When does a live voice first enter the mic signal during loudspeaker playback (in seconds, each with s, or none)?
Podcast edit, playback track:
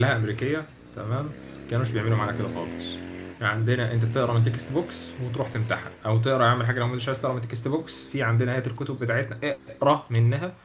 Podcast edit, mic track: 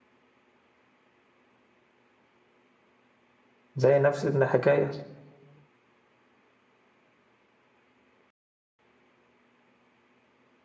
3.8 s